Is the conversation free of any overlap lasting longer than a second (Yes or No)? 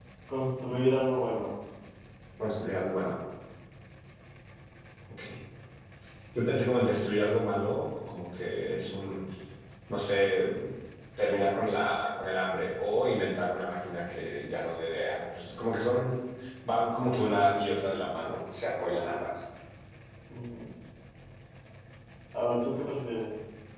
Yes